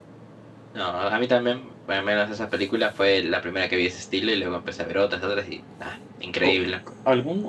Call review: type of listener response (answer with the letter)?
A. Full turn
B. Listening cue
A